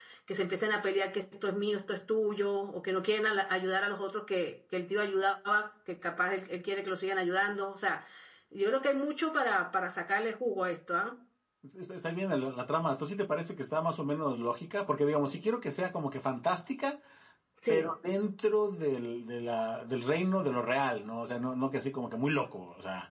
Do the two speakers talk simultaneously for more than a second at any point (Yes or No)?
No